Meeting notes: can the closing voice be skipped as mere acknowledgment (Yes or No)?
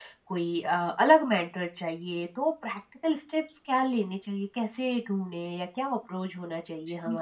No